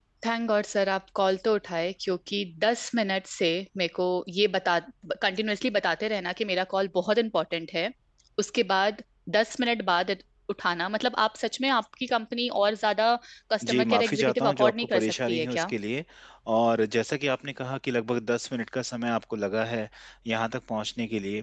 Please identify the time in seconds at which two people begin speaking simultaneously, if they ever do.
14 s

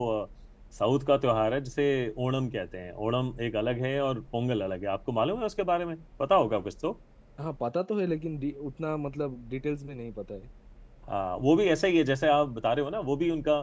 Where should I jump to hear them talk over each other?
none

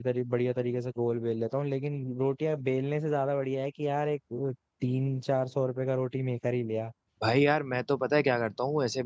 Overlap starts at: none

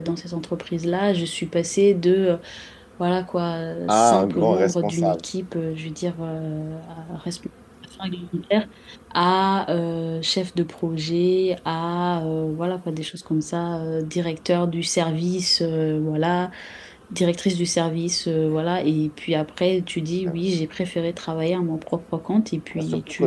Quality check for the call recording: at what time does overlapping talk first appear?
4 s

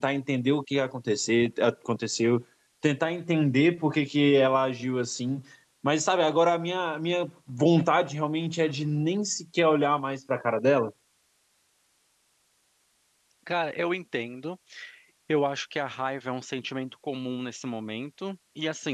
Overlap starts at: none

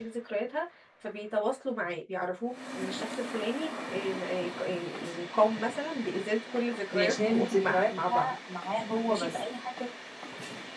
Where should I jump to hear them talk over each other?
7 s

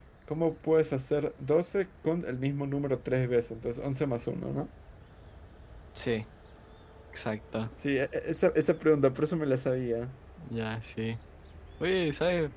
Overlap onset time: none

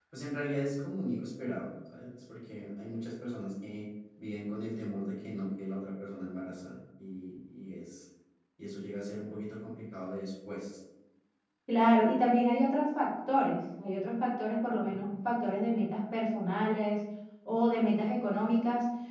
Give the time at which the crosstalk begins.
none

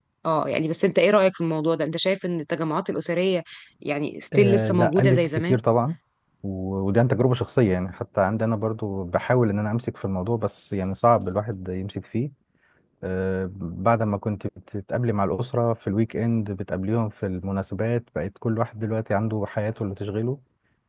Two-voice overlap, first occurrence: 4 s

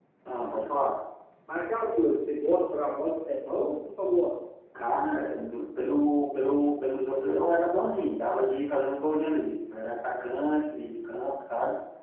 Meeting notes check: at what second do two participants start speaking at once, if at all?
none

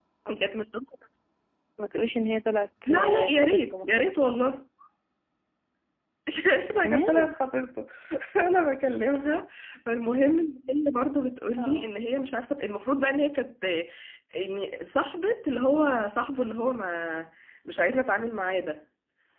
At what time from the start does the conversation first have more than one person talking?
3 s

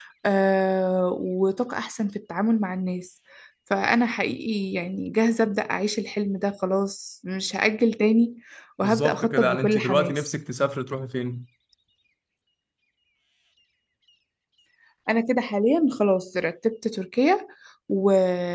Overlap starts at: 9 s

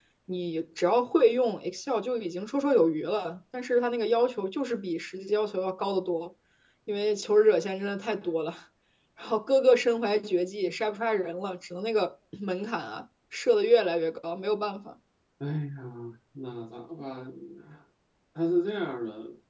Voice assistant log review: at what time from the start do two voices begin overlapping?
none

